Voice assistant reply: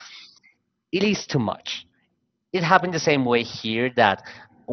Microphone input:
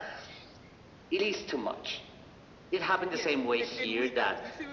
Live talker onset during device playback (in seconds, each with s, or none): 3.1 s